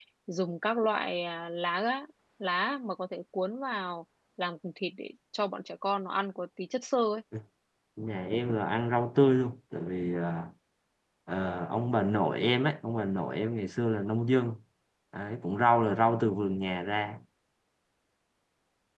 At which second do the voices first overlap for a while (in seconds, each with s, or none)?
none